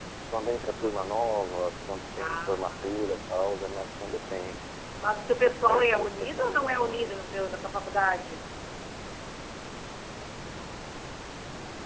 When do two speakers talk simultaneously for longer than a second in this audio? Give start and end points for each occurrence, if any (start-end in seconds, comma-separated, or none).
2.2-3.5, 5.2-7.2